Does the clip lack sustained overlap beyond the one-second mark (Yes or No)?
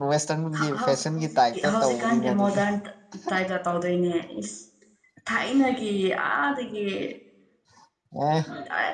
No